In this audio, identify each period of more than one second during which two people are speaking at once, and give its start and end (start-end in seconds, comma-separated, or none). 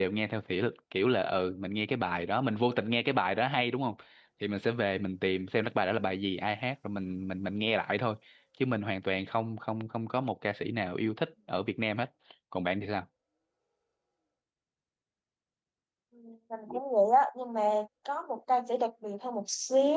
none